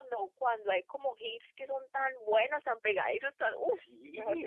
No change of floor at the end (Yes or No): No